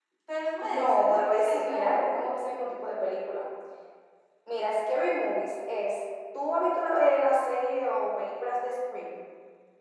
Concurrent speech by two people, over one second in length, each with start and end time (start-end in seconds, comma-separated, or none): 0.6-2.2